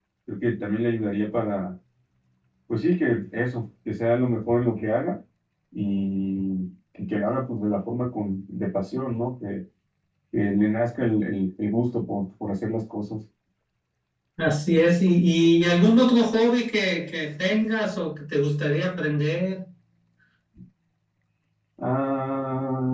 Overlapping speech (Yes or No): No